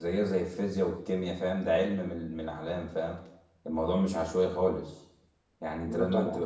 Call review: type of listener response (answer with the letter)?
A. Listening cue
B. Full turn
A